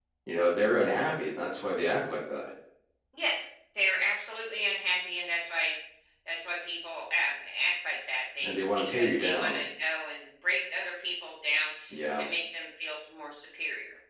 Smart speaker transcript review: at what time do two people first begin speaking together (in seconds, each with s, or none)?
8.4 s